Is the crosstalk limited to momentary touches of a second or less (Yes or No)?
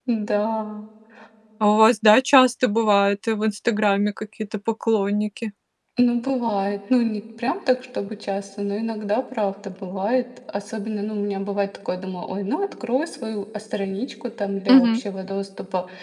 Yes